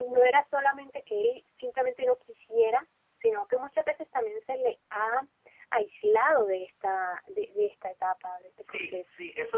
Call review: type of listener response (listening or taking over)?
taking over